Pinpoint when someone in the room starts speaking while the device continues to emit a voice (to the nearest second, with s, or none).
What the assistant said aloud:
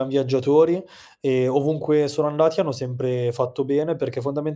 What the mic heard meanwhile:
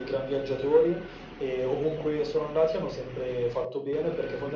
none